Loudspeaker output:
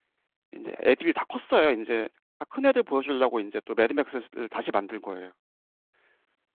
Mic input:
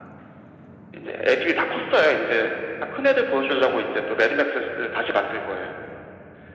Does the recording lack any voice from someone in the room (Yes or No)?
Yes